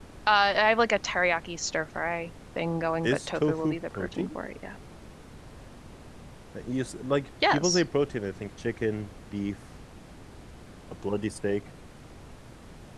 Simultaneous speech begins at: 3.0 s

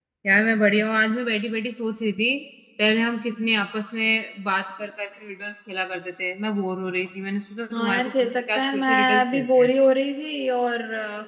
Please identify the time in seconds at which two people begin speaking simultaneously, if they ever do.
7.7 s

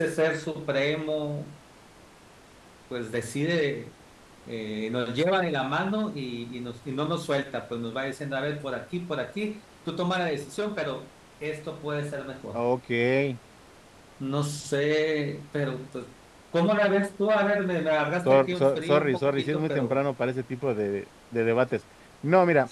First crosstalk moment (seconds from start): 18.2 s

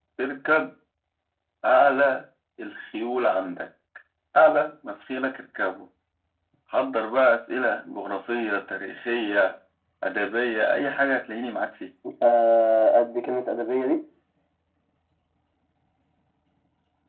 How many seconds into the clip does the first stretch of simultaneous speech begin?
none

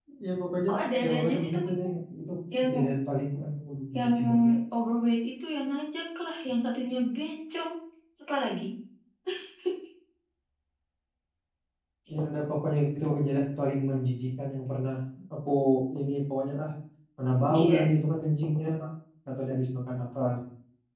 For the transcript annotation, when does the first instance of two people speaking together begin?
0.7 s

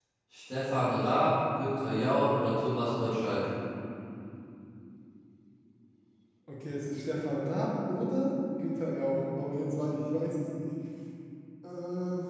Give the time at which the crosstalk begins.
none

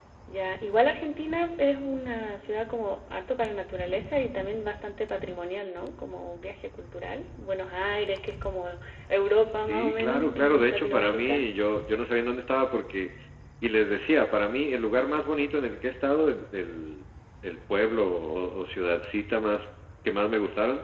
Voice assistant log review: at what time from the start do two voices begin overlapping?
9.6 s

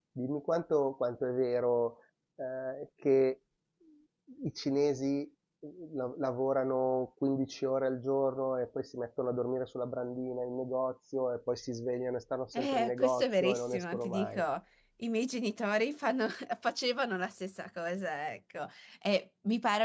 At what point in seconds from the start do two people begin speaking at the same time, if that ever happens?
12.5 s

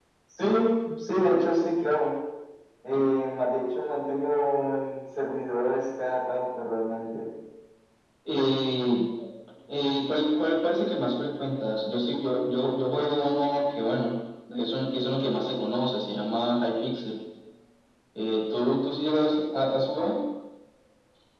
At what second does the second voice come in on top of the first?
none

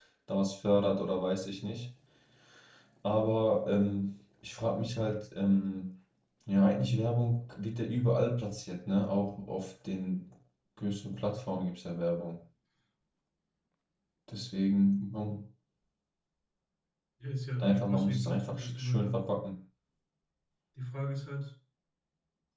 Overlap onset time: 17.6 s

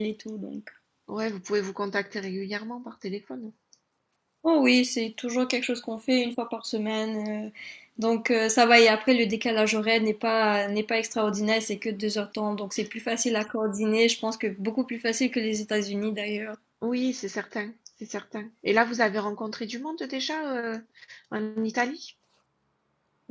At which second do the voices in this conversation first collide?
none

